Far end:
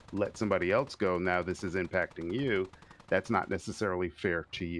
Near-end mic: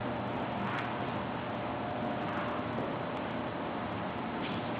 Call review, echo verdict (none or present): none